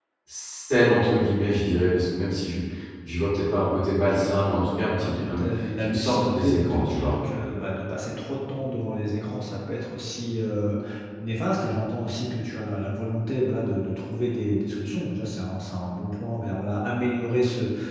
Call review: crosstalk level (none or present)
present